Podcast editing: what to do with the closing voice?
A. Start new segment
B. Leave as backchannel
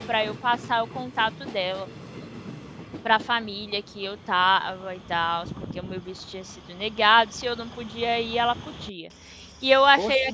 B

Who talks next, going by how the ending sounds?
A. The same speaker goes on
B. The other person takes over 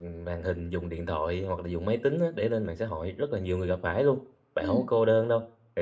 A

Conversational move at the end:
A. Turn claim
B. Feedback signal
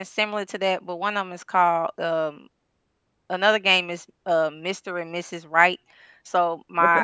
B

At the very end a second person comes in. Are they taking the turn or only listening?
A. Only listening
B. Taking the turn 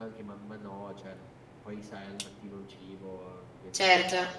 B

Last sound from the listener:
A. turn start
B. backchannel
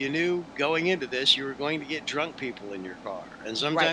A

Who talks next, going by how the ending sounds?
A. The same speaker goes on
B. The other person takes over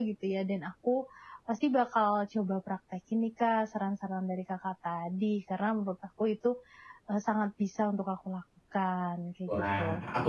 B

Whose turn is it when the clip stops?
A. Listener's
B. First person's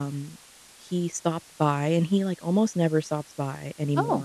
B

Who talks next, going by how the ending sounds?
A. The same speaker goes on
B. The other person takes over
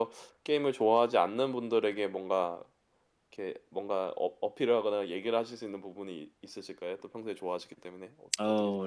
B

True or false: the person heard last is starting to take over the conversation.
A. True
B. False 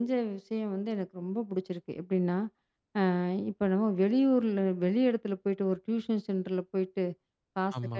B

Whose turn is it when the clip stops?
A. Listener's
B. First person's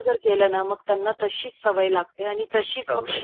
B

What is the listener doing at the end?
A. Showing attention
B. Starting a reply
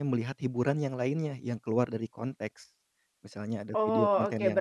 B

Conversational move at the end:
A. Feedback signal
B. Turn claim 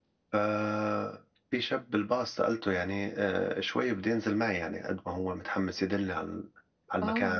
B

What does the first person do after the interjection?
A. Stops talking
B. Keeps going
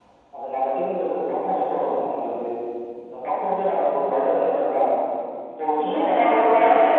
A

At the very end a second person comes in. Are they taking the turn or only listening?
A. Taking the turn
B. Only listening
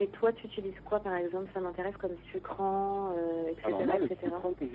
A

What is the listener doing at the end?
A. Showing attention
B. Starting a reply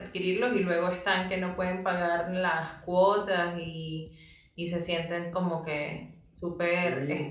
B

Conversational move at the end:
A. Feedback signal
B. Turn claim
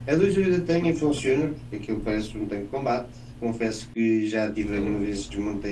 A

